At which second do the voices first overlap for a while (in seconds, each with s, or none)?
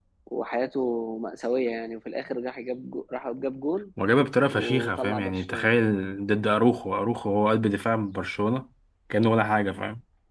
4.5 s